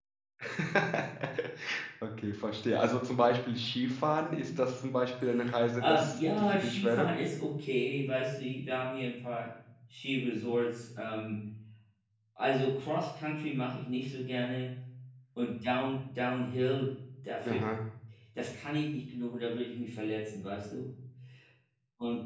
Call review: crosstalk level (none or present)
present